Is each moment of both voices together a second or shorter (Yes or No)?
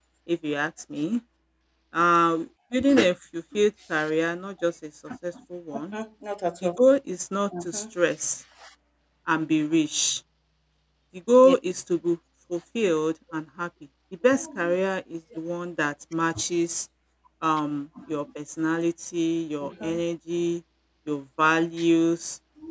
Yes